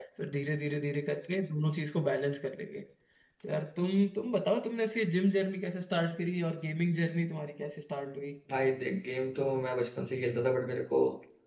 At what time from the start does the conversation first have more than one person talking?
none

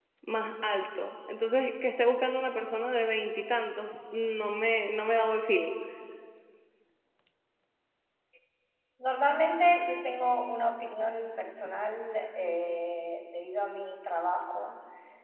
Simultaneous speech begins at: none

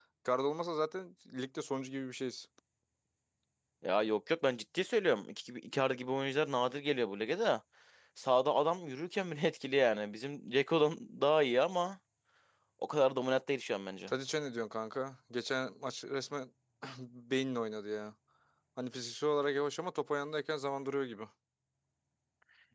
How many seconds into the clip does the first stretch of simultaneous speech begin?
none

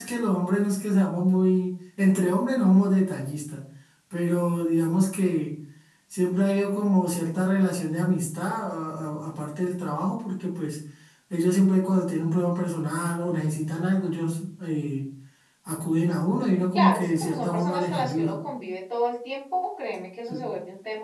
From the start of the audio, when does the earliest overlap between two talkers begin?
16.7 s

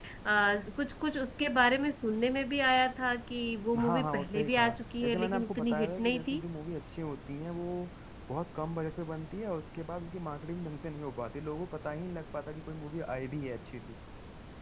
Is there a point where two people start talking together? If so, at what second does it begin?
3.7 s

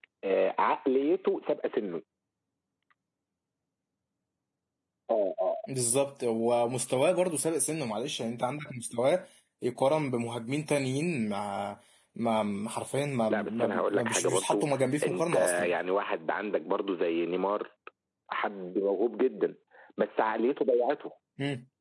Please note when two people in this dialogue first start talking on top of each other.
13.3 s

